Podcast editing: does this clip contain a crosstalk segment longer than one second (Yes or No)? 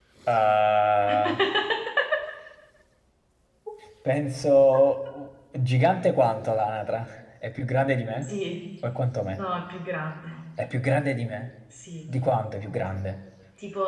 No